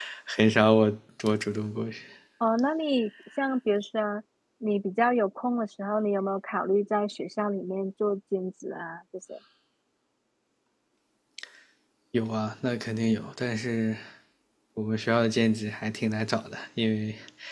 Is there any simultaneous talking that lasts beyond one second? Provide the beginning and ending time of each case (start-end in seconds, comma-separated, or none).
none